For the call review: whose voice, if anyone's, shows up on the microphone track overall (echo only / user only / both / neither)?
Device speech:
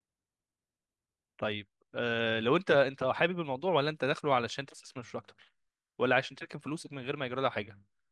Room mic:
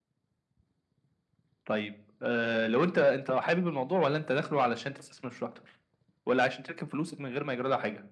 echo only